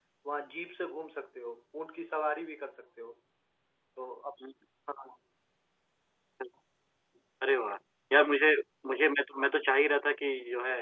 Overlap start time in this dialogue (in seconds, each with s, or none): none